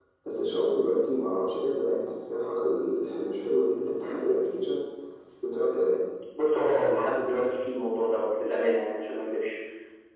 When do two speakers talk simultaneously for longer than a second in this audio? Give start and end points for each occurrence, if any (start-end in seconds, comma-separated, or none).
none